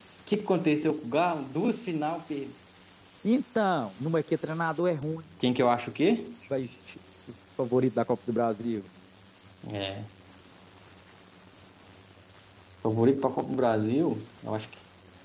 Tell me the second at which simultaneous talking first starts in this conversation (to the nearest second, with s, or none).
none